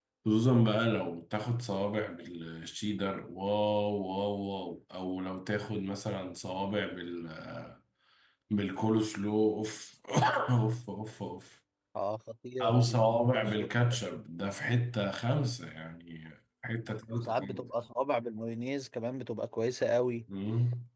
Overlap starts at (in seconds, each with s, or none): 12.6 s